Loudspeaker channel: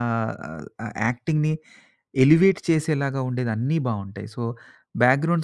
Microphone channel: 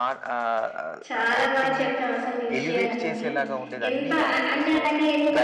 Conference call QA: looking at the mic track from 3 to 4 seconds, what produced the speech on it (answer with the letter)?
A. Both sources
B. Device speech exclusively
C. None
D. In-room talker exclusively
A